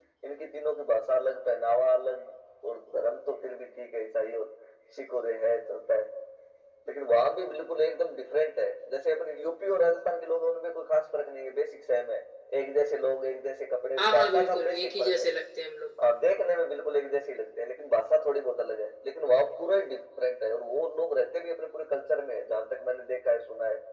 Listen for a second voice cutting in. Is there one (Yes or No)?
Yes